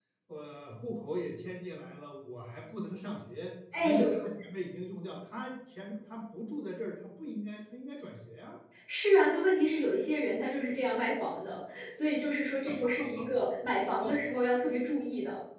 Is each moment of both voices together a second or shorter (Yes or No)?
Yes